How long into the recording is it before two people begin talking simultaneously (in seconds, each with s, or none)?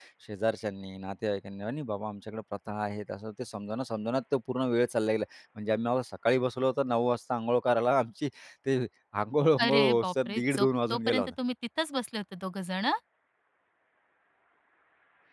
9.6 s